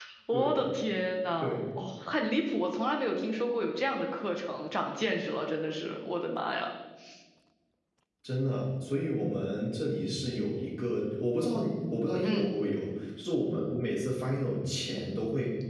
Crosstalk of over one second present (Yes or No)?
No